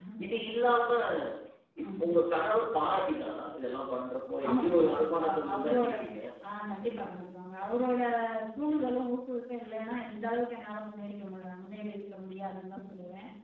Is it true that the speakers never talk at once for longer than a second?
No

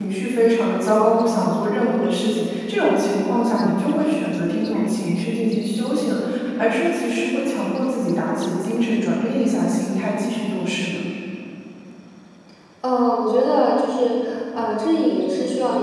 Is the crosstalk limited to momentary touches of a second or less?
Yes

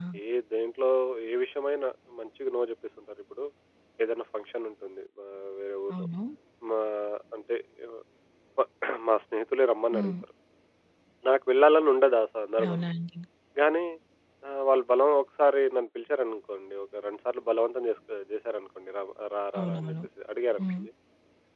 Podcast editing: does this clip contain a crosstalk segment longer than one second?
No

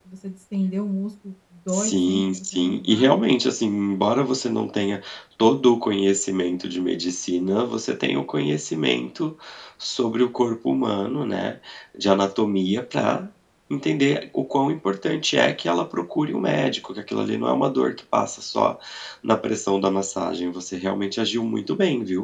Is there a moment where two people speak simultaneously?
Yes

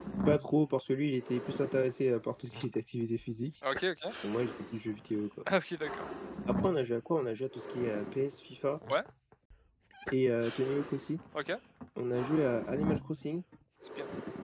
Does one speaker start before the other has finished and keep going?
No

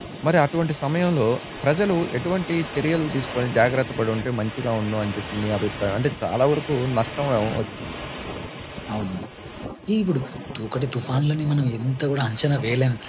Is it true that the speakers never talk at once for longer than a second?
Yes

